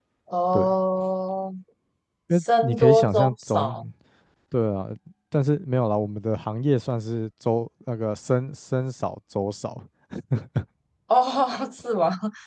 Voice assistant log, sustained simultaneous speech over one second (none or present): present